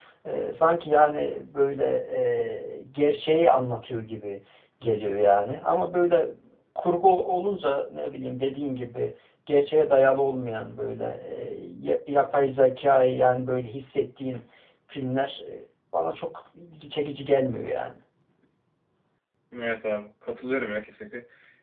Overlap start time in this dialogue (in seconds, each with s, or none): none